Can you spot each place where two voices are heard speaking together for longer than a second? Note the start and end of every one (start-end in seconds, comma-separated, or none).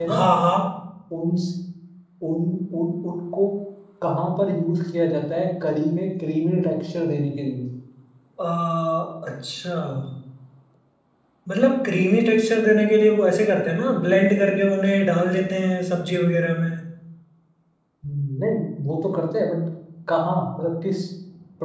none